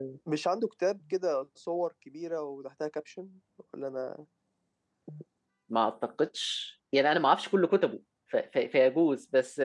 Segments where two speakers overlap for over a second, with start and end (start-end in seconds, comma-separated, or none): none